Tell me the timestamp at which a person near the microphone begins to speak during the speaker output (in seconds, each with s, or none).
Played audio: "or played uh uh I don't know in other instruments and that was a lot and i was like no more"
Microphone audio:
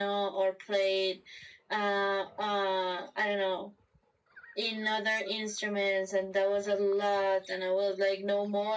none